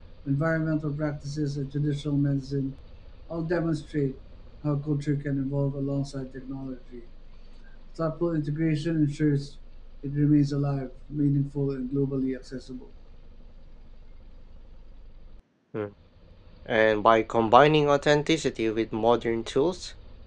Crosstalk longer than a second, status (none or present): none